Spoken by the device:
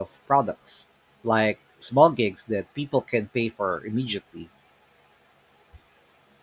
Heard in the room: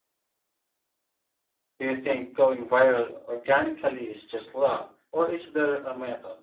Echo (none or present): none